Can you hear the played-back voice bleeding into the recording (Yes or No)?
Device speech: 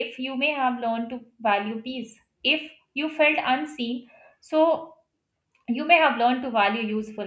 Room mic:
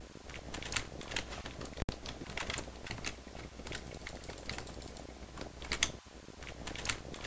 No